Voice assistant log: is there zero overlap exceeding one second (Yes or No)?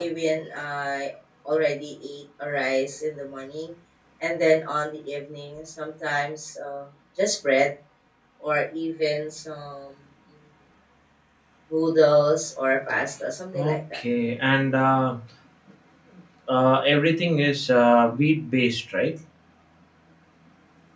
Yes